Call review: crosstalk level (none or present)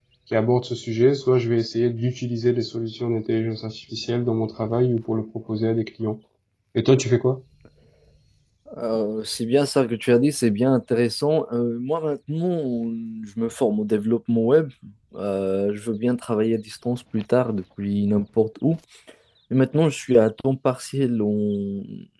none